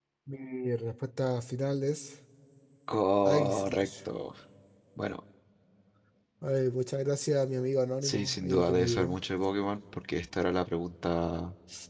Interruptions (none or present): present